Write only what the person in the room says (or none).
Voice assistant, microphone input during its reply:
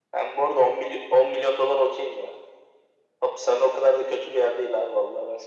none